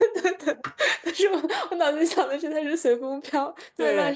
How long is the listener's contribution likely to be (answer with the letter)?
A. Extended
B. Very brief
A